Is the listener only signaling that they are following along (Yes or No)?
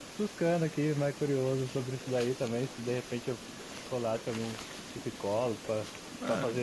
Yes